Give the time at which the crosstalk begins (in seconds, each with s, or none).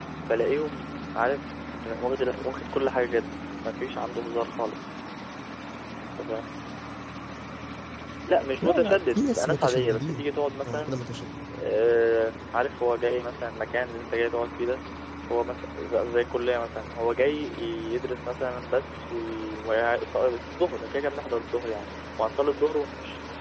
8.6 s